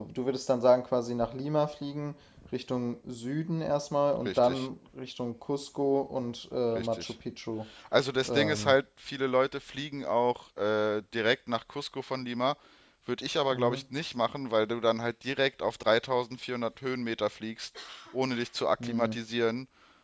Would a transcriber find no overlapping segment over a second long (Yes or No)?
Yes